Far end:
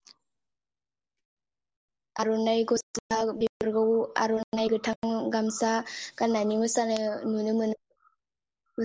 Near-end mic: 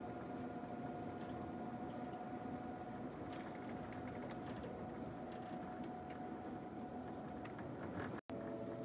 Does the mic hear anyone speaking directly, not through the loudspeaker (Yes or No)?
No